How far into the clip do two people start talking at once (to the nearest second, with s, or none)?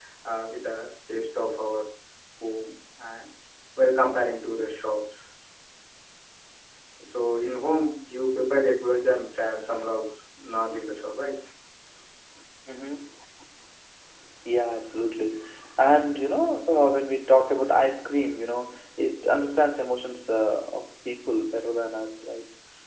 none